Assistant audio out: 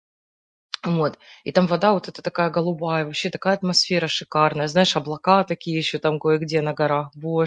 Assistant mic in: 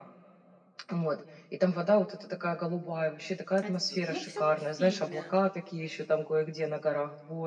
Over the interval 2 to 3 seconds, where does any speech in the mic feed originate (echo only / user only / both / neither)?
echo only